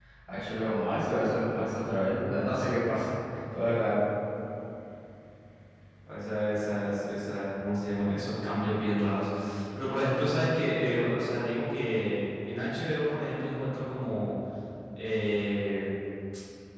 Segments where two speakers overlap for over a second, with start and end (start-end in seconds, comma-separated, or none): none